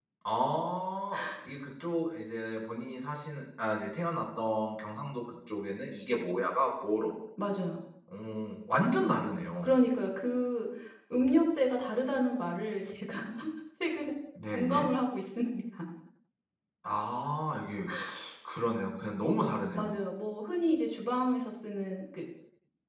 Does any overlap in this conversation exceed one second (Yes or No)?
No